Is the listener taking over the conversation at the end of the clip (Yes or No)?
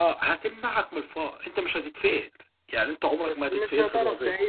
Yes